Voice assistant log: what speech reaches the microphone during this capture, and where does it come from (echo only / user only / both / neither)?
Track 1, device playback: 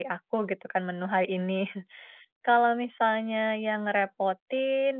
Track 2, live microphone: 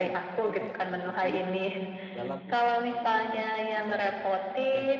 both